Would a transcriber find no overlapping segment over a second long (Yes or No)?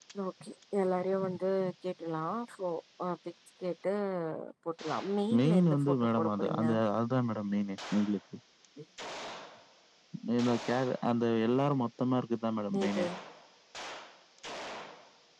No